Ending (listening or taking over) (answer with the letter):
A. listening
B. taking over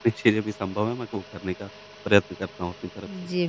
B